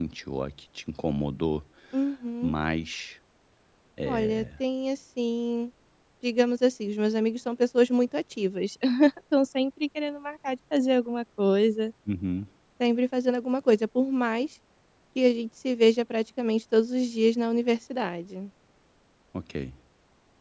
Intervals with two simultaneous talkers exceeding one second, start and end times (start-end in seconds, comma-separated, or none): none